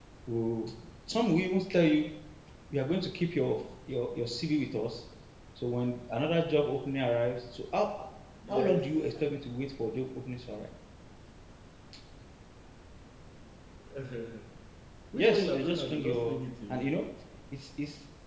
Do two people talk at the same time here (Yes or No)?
Yes